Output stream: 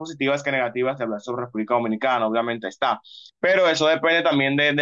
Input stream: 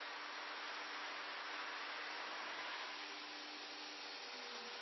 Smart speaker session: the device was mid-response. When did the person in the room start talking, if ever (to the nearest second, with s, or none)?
none